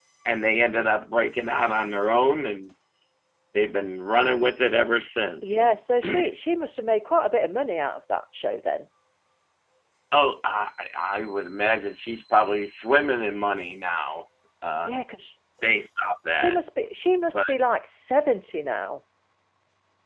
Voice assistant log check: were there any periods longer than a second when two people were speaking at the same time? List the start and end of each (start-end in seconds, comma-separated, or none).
none